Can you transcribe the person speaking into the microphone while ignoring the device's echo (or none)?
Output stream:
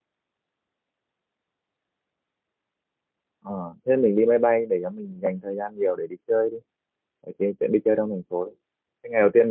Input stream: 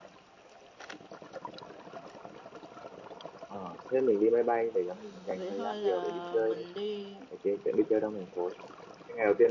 vậy thôi là mình đi